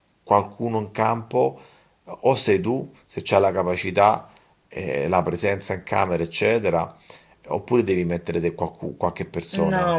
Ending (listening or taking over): taking over